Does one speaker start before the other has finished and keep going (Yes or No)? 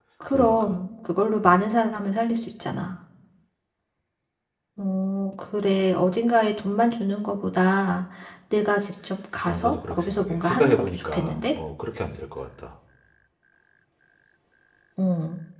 Yes